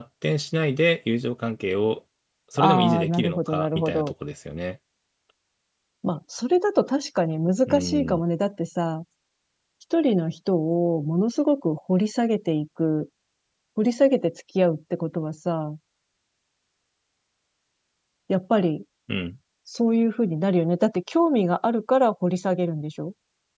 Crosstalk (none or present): present